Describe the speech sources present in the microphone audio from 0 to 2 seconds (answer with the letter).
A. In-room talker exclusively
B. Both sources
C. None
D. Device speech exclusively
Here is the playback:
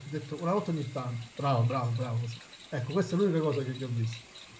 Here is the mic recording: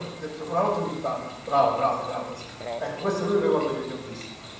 D